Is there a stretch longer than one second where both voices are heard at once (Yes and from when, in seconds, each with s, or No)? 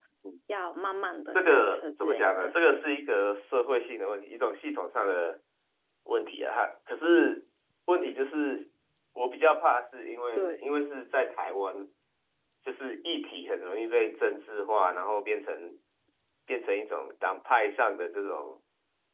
Yes, from 1.3 s